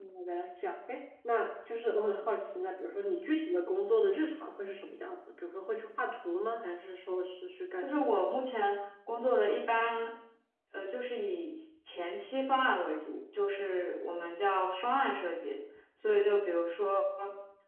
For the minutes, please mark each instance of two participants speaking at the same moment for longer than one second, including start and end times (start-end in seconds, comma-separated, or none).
none